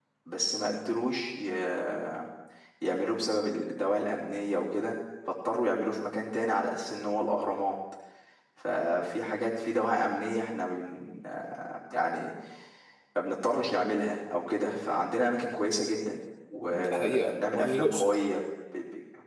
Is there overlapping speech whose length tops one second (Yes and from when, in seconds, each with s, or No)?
Yes, from 16.7 s